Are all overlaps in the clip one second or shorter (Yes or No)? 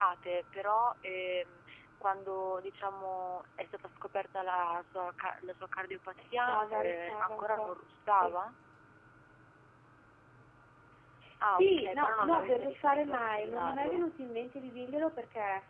No